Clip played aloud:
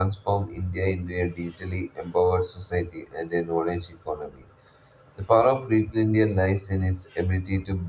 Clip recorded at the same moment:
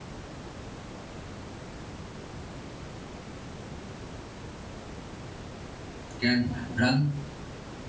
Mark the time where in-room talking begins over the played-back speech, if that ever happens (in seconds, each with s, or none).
6.2 s